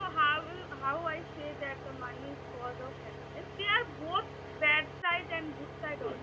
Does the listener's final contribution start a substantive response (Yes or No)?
No